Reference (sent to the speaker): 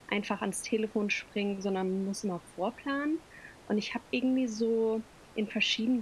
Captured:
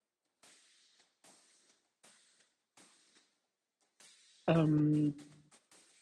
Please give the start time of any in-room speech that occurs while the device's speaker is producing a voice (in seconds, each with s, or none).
4.5 s